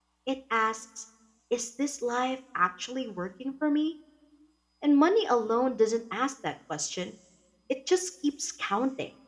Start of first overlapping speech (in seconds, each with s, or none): none